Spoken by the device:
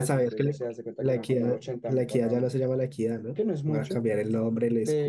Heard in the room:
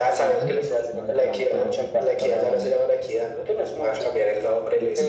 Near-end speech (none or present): present